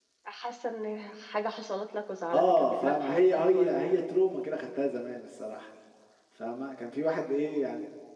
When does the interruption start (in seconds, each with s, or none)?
2.3 s